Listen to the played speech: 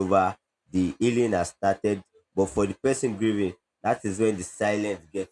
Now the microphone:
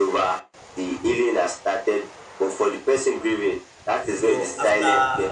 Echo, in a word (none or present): present